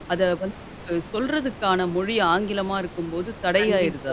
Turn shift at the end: Yes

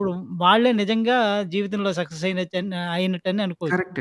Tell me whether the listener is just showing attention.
No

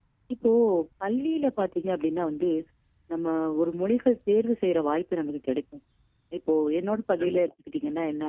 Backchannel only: Yes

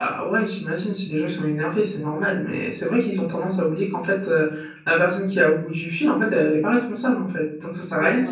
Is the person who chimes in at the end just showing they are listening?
No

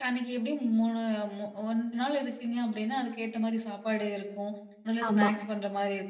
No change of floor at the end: Yes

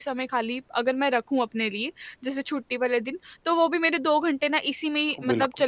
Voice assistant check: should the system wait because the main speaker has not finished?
Yes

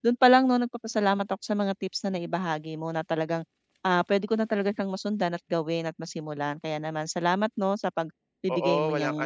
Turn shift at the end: Yes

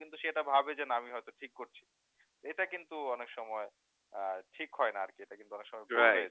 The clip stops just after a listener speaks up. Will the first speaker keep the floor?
No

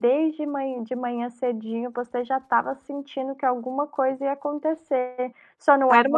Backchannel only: Yes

